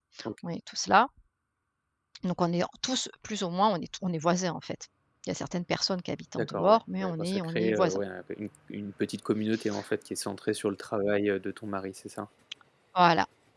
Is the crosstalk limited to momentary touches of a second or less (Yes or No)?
No